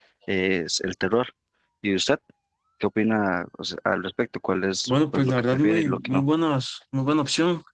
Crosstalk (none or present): present